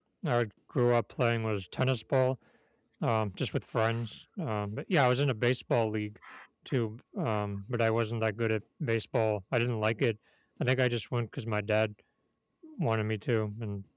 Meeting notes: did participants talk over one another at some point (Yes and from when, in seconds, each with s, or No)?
No